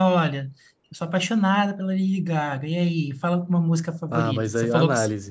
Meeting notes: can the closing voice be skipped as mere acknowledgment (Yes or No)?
No